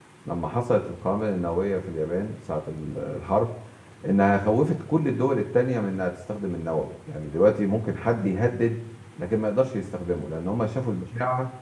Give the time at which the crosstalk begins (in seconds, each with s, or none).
none